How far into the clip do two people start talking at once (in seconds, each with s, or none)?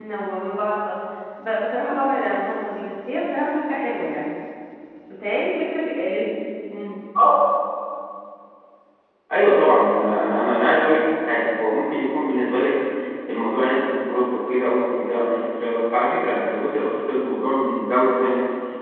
none